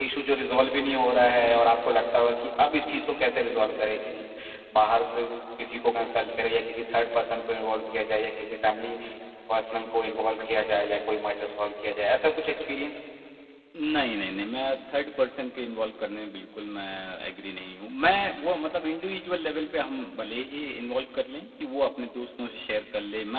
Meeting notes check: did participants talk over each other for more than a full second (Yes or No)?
No